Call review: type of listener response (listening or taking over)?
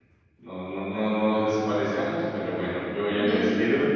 listening